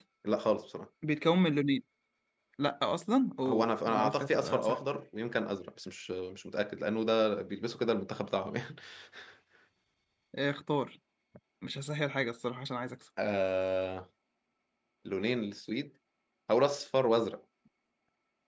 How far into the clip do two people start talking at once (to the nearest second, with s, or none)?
3 s